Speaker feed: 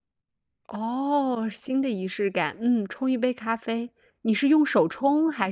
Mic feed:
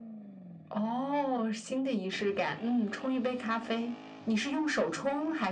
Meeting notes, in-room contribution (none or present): none